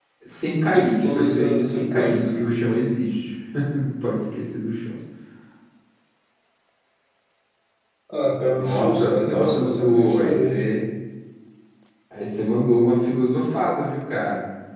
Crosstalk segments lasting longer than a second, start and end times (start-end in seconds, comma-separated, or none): 0.7-2.4, 8.4-10.7